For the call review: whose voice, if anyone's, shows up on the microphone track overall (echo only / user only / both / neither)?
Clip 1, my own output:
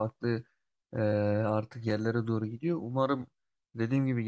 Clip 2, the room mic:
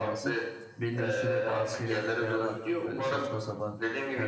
both